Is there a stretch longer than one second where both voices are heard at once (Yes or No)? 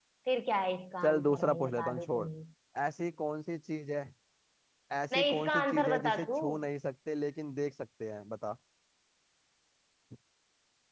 Yes